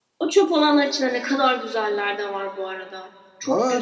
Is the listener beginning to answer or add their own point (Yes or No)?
Yes